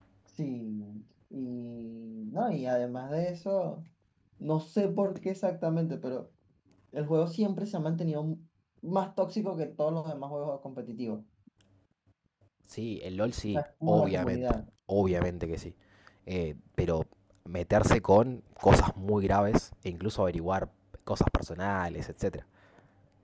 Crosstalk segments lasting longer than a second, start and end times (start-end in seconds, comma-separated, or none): 13.2-14.6